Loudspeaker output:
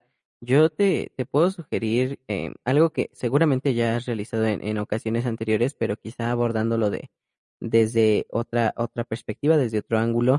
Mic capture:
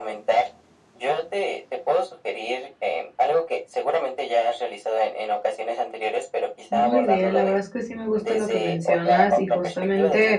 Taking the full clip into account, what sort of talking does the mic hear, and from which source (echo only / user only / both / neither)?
both